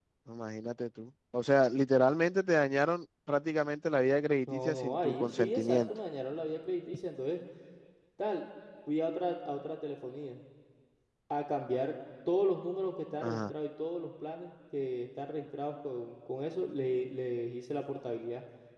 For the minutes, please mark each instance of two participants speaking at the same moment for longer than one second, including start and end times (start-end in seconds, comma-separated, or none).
4.5-5.9